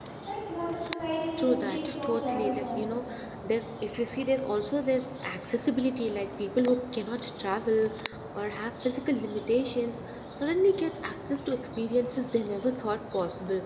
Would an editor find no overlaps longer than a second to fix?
No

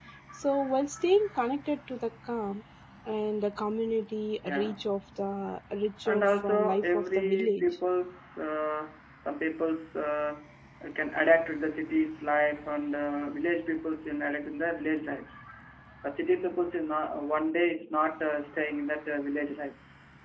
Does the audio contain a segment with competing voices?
Yes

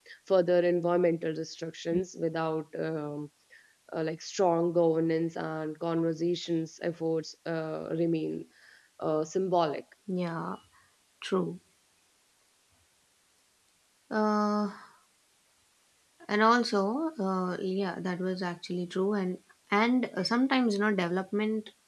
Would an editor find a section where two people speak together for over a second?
No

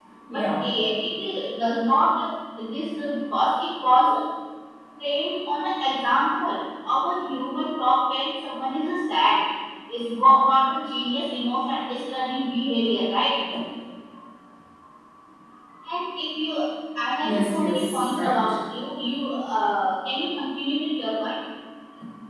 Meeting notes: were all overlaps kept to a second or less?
No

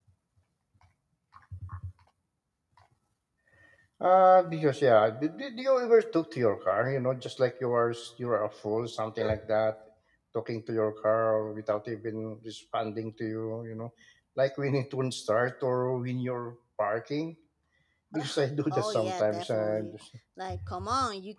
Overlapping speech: Yes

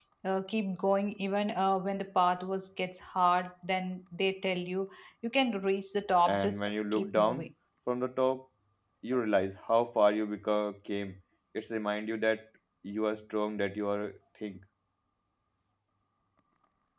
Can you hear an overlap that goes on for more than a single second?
Yes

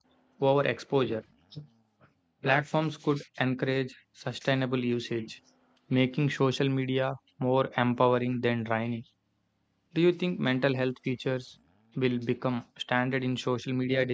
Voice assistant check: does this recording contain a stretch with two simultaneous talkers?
No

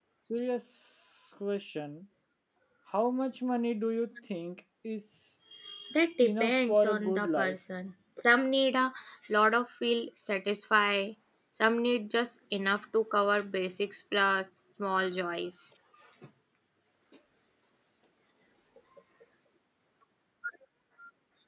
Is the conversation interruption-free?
No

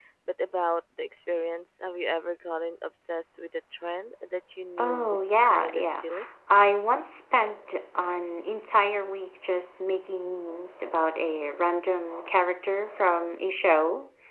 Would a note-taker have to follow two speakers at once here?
Yes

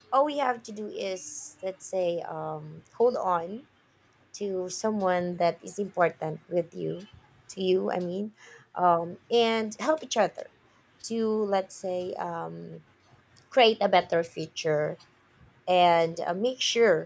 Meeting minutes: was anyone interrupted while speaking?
No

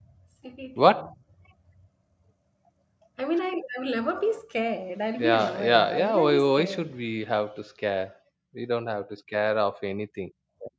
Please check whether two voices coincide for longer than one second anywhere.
Yes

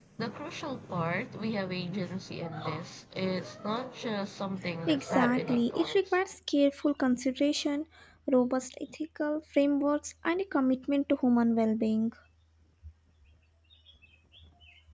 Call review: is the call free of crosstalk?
No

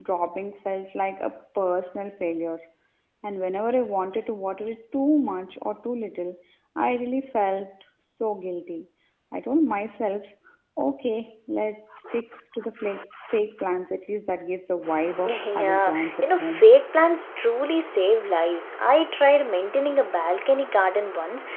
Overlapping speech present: Yes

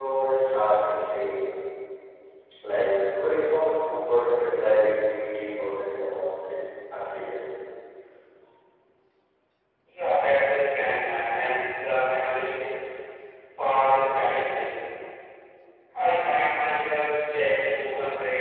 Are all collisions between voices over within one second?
Yes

